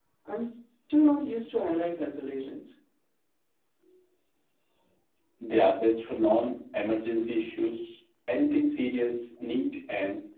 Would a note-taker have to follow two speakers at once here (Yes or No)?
No